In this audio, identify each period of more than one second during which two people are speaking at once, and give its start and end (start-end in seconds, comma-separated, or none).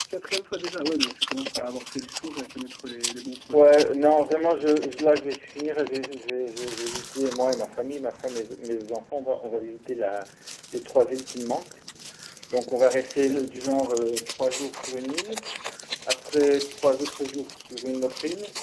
none